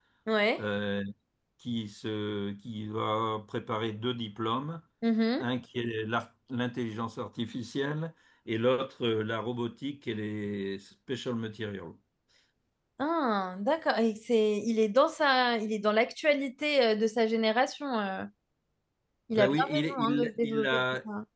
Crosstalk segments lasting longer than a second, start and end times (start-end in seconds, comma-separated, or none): 19.3-20.8